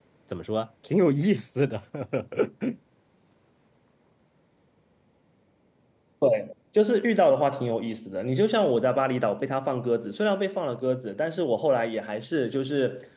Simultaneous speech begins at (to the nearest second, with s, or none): none